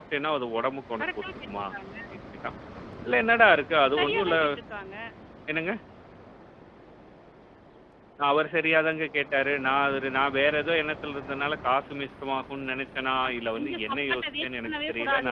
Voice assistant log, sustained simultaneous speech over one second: present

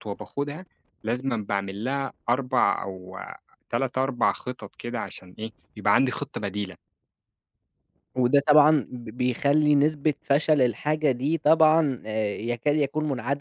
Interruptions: none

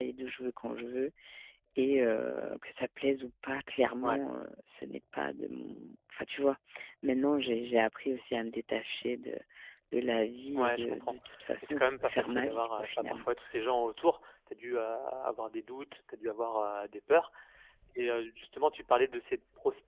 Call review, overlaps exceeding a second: present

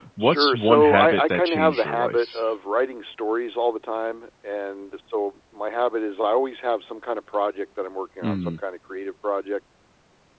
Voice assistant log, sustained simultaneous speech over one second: present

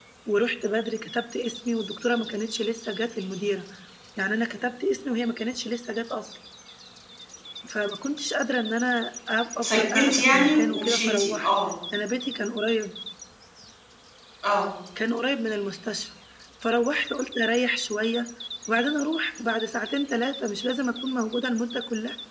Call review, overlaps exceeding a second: present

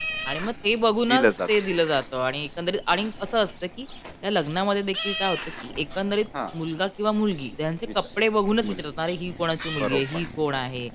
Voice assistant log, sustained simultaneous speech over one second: none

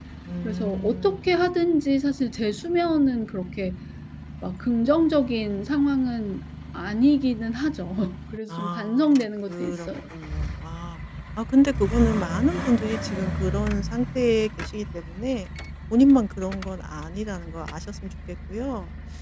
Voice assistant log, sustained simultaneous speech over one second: present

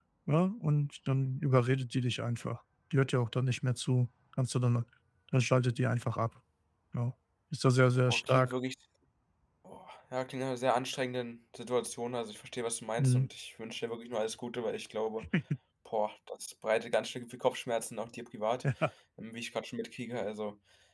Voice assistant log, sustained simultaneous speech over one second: none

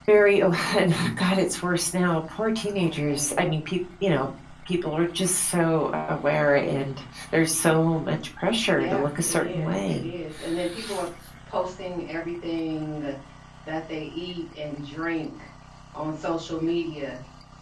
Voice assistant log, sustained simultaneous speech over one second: present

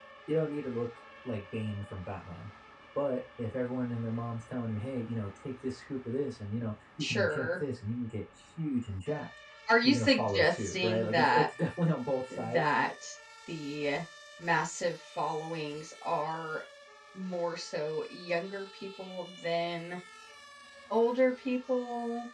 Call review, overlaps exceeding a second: present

